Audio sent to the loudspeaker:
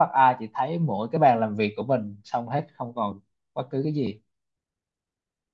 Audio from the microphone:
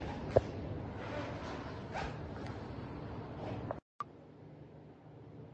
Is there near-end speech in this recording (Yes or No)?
No